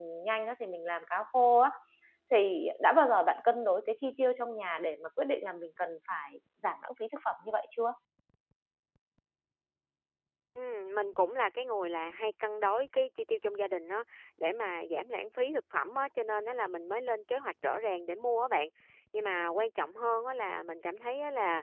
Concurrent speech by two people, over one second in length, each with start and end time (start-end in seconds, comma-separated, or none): none